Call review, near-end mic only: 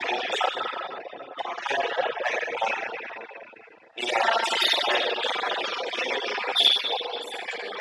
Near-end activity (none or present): none